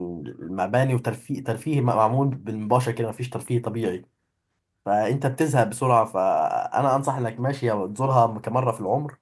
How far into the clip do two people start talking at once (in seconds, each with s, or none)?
none